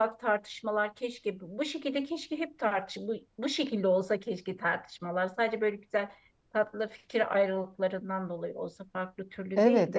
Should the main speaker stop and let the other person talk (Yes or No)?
Yes